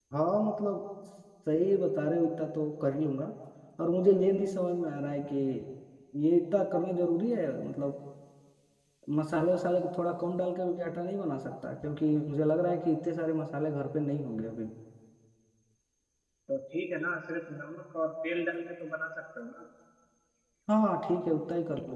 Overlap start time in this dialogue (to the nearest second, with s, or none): none